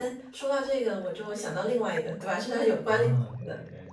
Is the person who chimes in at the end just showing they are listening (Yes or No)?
No